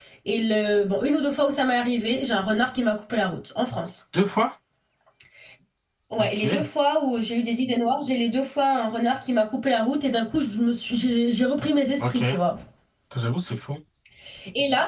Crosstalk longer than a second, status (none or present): none